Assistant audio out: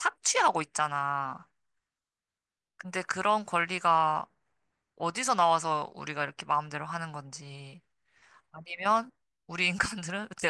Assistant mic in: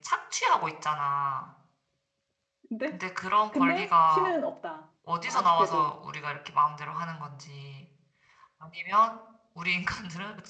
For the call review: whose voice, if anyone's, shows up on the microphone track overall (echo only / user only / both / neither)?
both